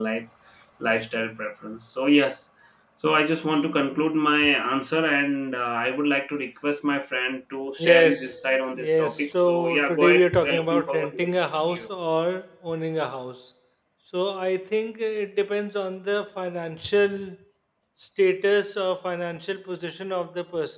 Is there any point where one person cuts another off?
Yes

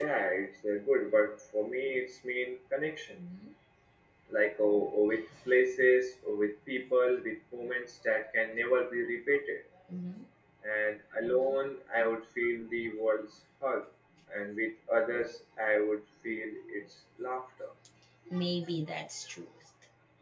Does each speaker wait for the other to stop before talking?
Yes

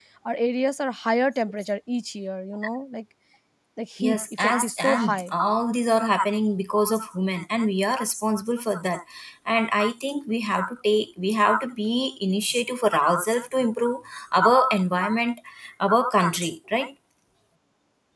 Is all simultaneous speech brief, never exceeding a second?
No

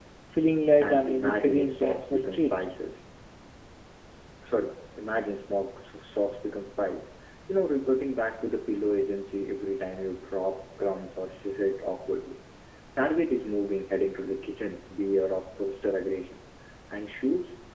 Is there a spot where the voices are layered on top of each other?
Yes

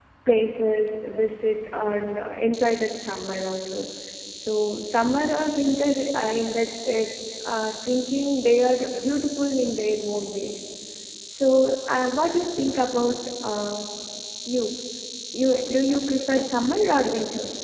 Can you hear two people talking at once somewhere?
Yes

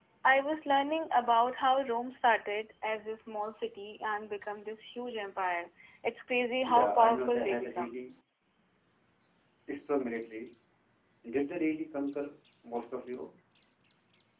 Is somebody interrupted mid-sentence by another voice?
Yes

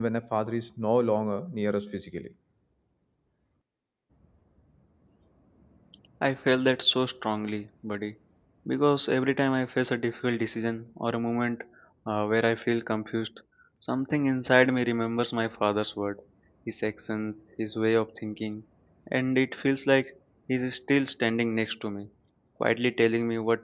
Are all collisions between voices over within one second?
Yes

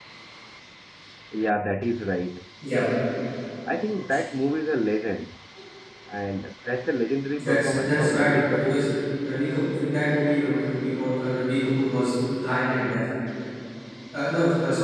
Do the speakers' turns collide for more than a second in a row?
Yes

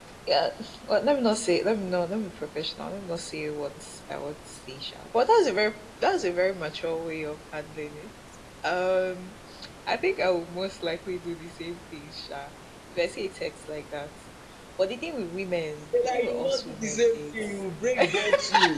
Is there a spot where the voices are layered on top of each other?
Yes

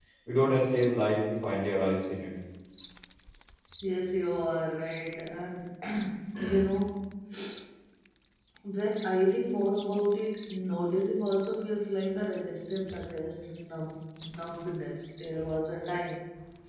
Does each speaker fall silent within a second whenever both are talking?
Yes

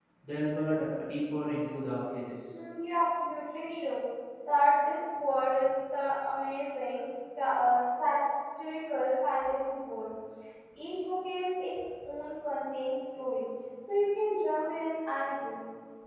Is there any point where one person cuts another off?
No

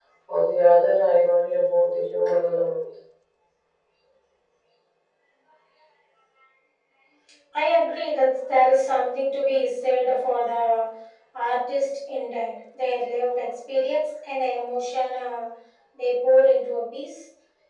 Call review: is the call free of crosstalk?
Yes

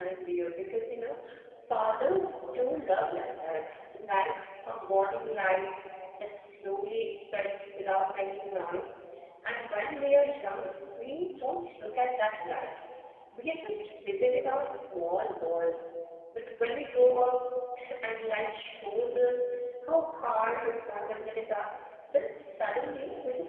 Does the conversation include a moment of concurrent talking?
No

